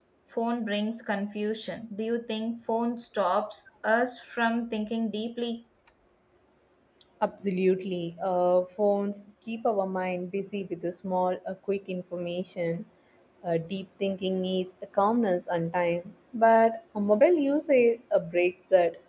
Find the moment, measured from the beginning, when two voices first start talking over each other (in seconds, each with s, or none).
none